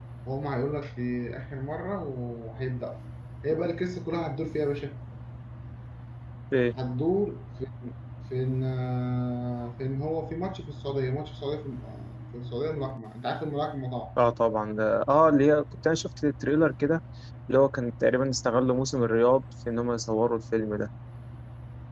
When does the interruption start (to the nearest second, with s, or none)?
none